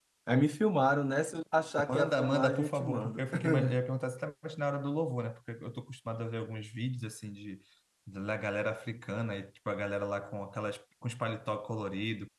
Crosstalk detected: Yes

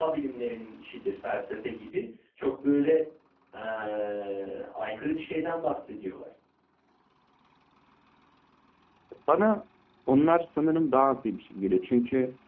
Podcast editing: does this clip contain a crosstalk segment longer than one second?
No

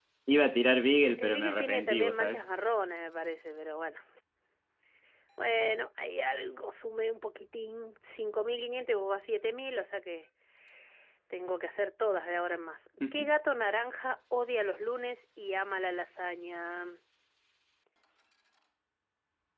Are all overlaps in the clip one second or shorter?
No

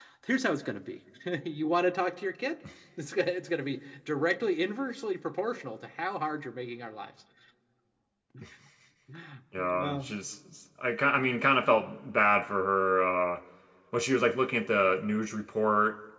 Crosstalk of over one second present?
No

